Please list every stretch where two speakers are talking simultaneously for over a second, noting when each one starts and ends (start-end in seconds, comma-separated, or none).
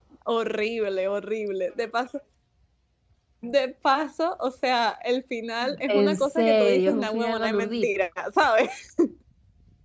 5.9-7.9